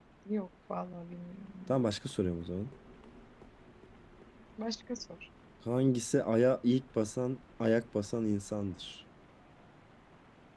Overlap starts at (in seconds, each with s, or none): none